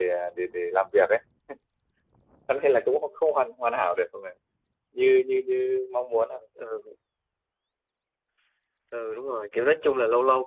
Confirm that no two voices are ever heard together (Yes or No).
Yes